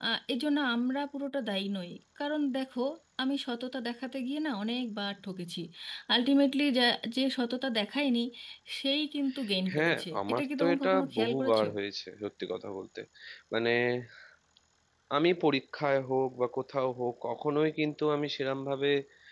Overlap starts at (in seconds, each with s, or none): 9.7 s